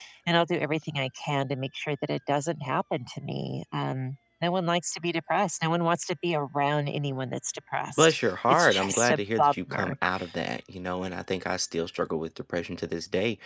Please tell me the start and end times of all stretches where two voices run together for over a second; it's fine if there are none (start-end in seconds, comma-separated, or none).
8.0-9.9